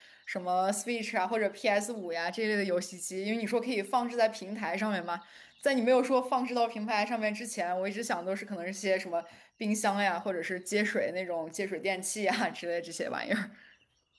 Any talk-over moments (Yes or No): No